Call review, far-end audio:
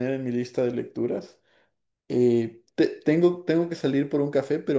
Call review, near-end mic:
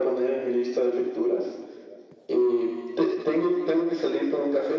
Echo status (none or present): present